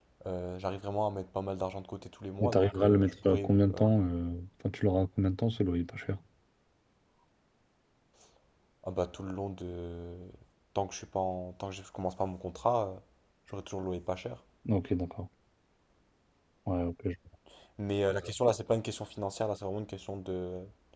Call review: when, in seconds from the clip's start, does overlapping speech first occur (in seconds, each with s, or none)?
2.4 s